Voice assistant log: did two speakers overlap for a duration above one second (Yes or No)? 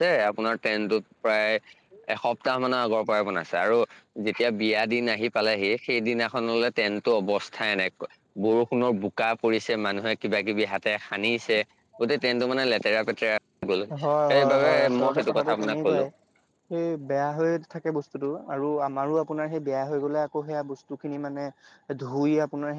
Yes